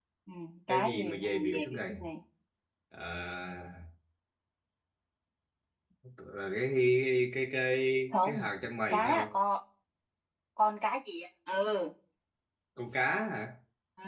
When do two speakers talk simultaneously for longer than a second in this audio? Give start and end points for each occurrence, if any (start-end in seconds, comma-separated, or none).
0.7-1.9